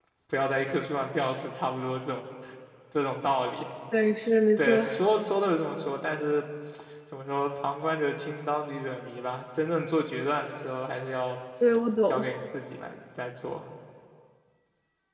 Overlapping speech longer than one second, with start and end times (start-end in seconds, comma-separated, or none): none